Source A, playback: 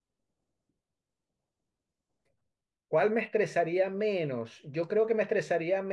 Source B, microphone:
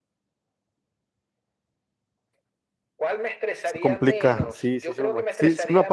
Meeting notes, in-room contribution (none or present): present